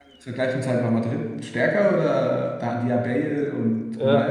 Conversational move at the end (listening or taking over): taking over